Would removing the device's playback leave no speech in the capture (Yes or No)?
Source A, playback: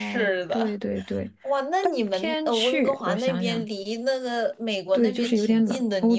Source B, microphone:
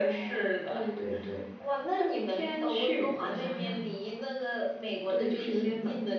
Yes